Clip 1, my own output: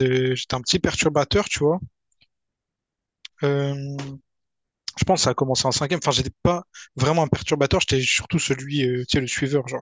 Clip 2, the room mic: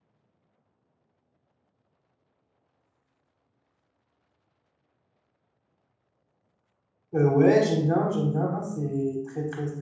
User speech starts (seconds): 7.1 s

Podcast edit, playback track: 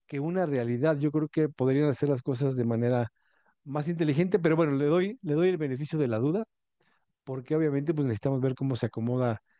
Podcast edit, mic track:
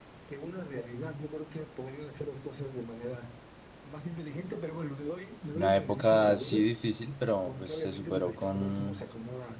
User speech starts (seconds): 5.5 s

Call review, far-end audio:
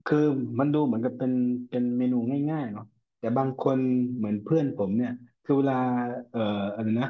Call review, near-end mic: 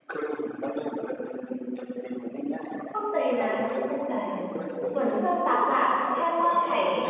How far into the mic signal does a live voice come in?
2.9 s

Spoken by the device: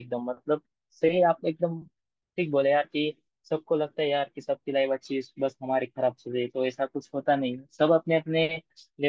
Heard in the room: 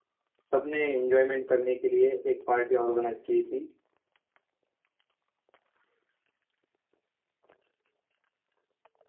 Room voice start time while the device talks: 0.5 s

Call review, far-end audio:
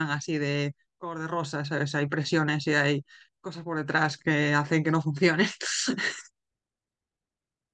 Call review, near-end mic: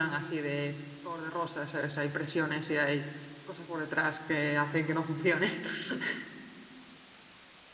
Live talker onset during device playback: none

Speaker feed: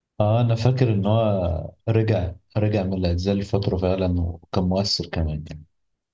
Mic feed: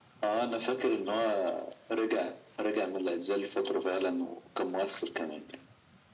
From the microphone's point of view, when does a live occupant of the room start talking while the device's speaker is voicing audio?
none

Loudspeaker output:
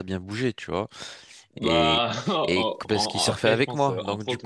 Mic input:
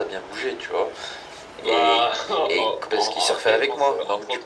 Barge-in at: none

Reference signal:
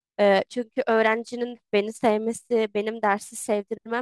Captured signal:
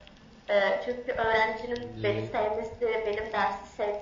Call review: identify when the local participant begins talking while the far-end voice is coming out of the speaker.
1.8 s

